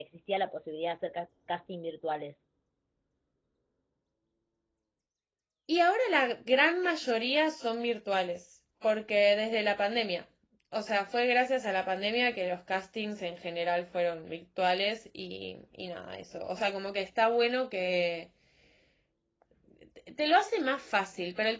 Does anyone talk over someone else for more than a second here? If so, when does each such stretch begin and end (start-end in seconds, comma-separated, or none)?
none